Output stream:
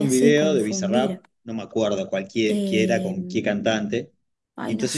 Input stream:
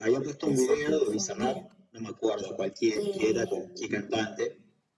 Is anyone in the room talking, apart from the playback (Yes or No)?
No